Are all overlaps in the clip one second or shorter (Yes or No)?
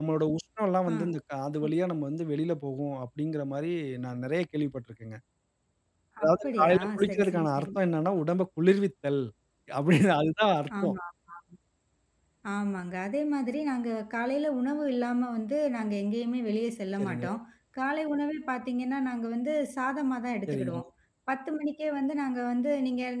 No